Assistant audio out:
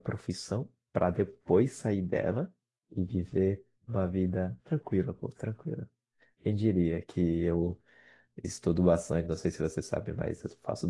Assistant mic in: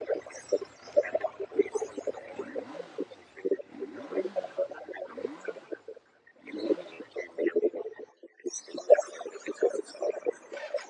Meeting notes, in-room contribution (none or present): none